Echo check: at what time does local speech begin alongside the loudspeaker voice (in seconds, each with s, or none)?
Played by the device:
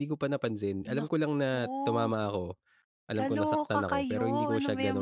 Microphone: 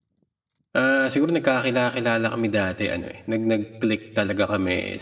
0.8 s